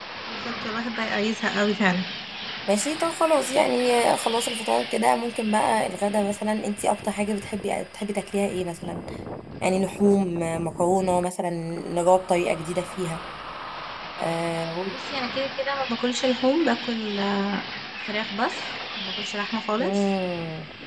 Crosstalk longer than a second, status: none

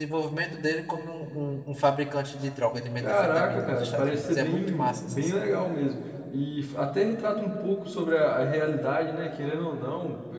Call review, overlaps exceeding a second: present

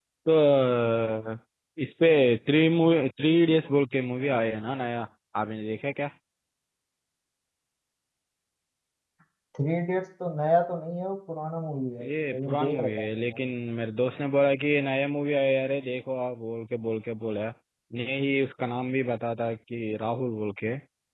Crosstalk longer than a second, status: present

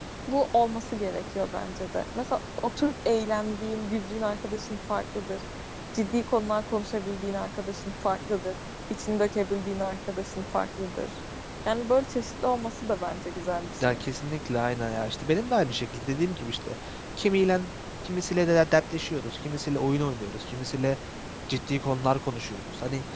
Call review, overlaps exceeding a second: none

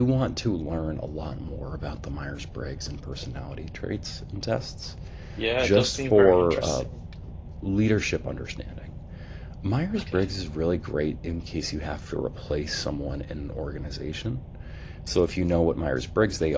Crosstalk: present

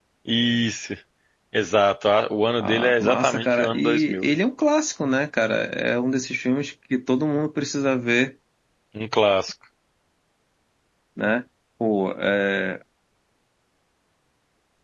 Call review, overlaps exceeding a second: present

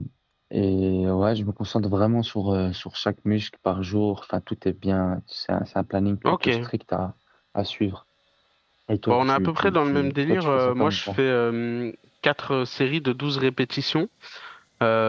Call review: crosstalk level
present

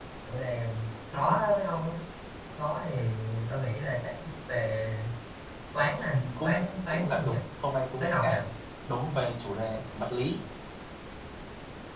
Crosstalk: present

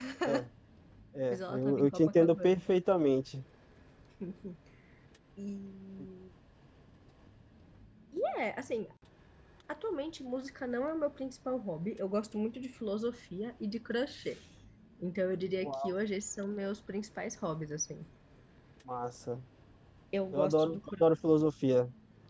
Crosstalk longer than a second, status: present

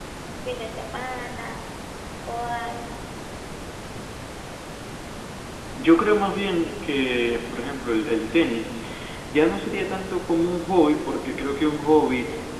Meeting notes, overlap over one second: none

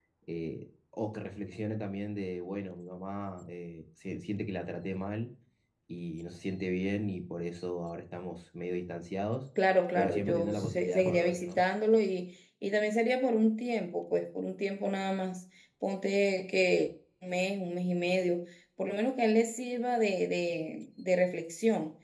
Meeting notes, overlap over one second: present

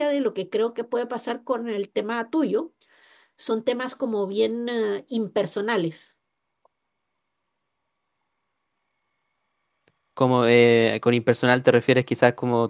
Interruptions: none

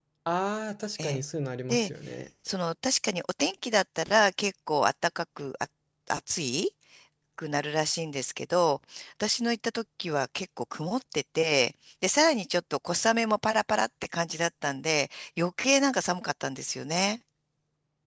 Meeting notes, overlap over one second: none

